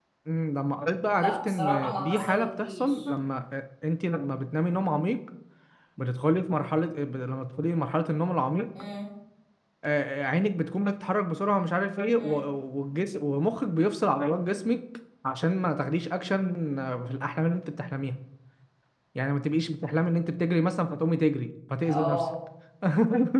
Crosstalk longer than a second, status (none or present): present